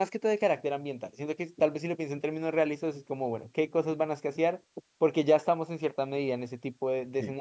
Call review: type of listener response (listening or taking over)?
listening